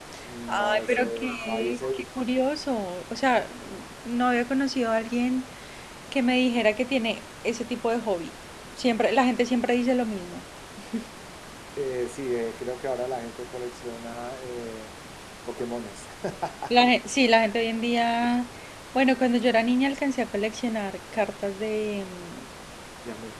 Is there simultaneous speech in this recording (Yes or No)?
Yes